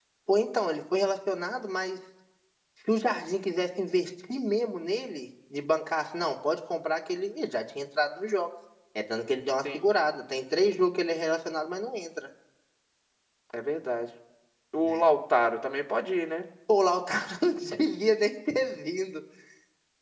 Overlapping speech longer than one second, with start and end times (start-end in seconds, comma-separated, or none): none